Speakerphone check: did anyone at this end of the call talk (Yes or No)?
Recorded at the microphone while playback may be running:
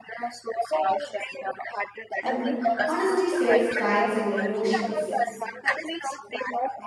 Yes